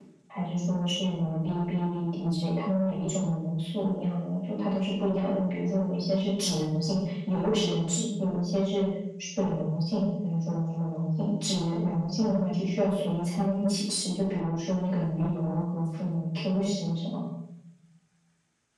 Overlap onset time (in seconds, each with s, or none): none